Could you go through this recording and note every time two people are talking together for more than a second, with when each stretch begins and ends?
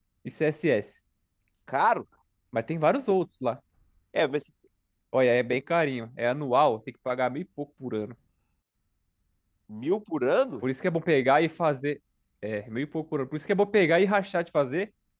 none

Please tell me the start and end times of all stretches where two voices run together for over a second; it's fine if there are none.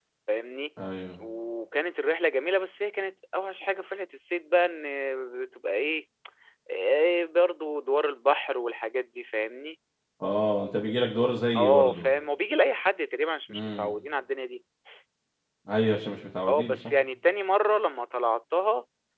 none

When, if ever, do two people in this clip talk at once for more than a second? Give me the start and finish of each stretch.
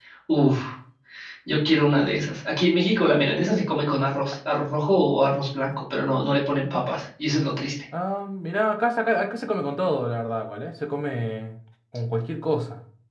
none

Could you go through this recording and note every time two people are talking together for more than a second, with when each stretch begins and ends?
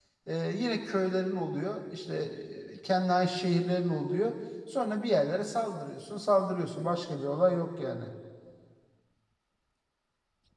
none

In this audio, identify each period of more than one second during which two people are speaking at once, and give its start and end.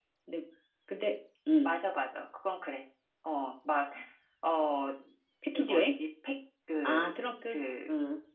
none

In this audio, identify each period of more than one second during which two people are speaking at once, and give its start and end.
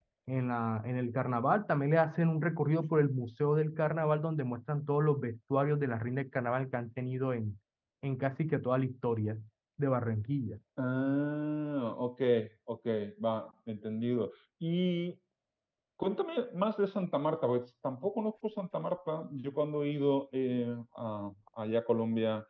none

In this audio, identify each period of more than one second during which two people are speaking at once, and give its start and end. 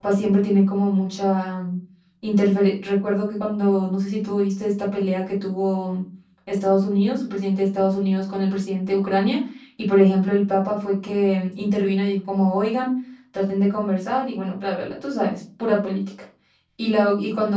none

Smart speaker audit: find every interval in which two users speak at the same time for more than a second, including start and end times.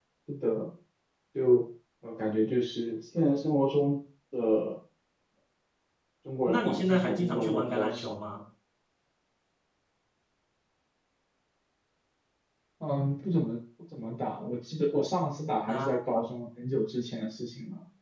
6.5-8.2

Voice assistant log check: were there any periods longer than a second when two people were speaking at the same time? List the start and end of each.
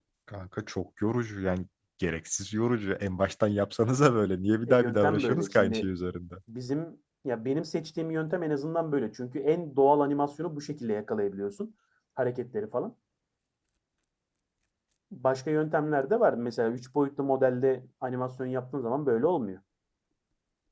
4.7-5.9

